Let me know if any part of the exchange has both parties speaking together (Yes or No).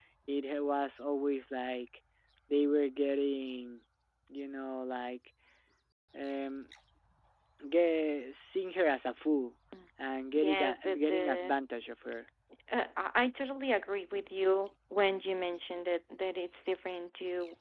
Yes